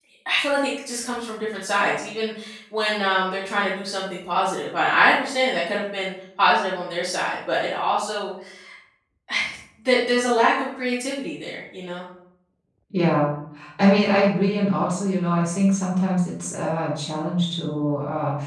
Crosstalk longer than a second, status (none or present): none